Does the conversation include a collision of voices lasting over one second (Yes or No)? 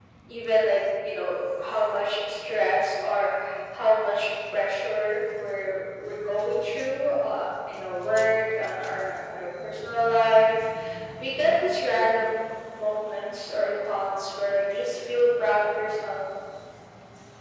No